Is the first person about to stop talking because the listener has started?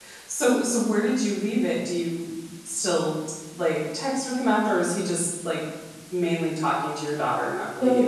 Yes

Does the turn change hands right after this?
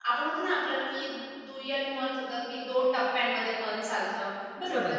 Yes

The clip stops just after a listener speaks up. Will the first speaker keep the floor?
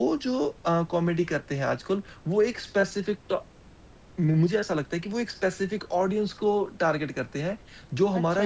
No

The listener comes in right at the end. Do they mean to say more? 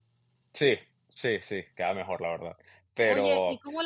Yes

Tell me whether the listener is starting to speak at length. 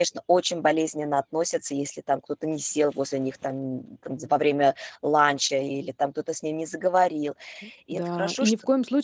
Yes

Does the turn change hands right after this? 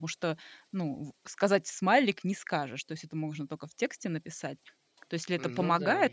No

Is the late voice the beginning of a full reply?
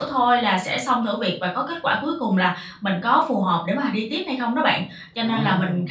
No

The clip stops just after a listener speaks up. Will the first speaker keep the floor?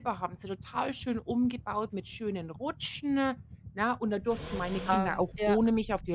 Yes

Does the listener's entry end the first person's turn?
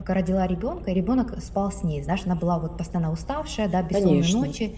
No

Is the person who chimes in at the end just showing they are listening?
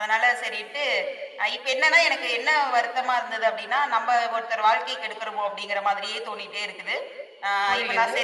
No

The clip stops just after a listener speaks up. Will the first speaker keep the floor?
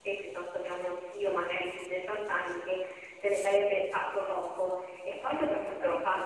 Yes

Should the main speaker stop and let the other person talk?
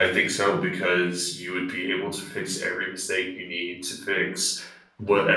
No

